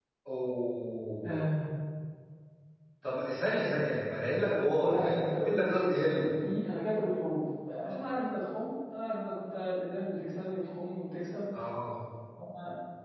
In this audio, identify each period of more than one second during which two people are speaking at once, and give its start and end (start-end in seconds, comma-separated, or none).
4.8-6.3